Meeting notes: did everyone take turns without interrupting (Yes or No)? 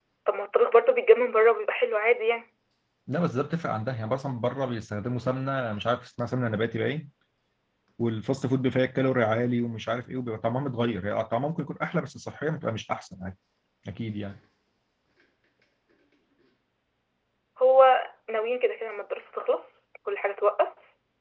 Yes